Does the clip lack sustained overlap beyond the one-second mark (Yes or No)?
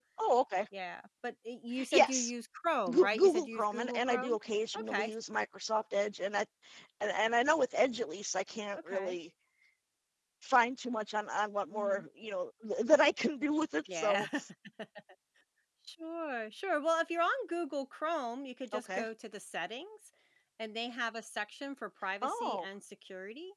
No